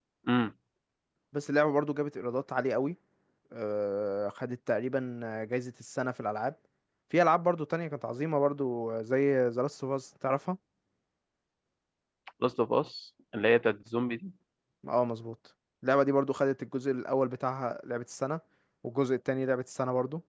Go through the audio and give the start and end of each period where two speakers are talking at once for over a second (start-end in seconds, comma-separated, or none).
none